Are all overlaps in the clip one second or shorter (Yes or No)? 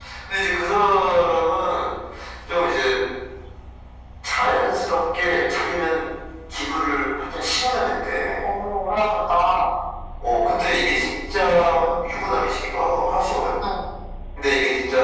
Yes